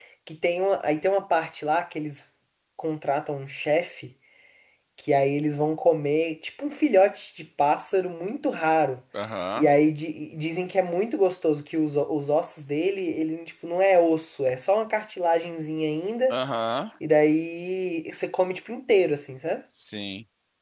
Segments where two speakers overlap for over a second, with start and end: none

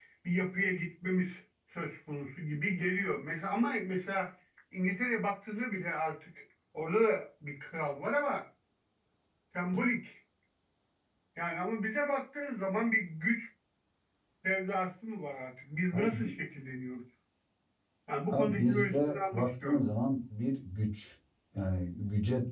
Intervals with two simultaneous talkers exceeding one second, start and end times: 18.3-19.8

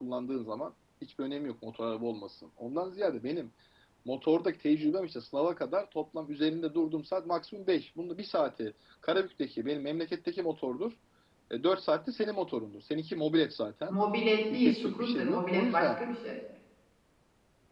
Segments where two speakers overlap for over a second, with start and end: 14.5-16.0

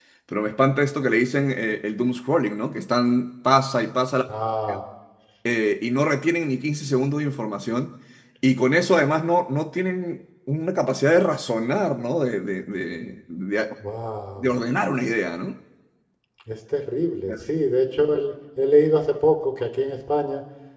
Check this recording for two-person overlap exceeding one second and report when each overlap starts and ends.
none

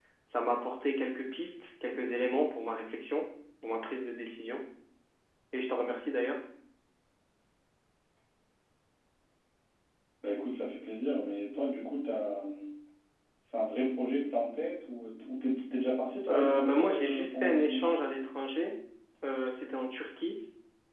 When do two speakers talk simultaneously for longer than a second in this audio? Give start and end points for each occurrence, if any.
16.3-17.9

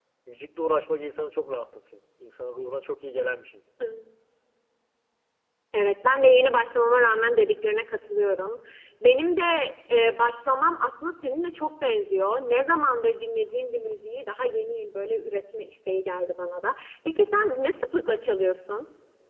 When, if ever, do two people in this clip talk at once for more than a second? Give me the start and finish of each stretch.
none

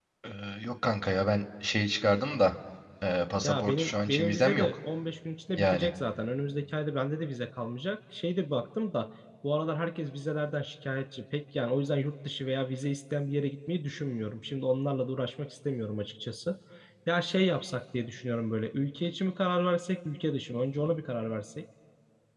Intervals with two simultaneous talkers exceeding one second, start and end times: 3.4-4.7

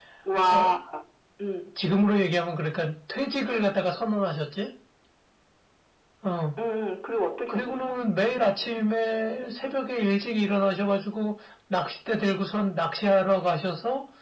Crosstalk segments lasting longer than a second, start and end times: none

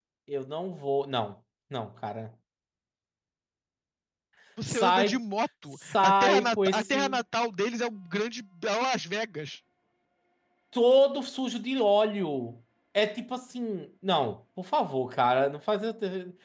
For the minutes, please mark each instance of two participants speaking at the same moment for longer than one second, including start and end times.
5.7-7.2

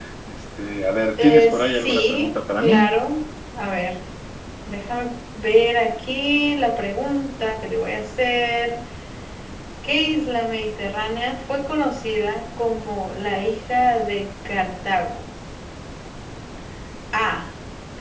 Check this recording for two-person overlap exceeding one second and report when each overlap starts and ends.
1.2-3.0

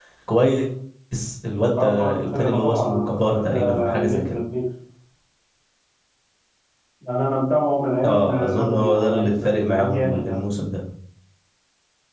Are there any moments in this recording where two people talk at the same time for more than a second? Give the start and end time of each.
1.8-4.2, 8.0-10.4

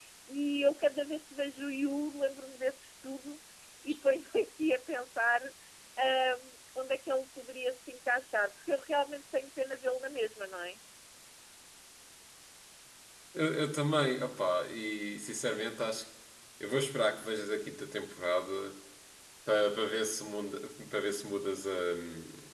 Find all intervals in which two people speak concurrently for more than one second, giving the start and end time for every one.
none

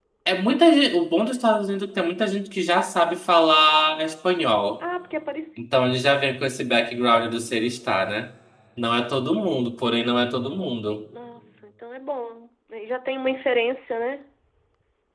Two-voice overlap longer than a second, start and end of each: none

